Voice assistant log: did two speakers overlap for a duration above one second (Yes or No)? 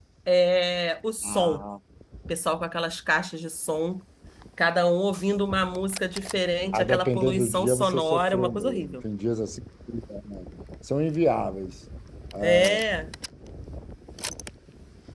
Yes